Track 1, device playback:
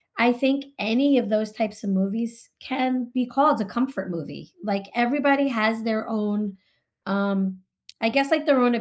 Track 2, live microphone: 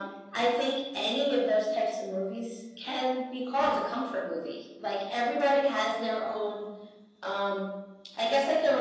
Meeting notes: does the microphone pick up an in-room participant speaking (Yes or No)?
No